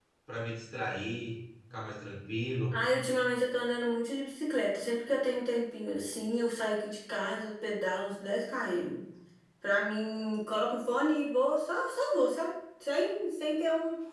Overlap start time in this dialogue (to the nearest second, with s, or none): none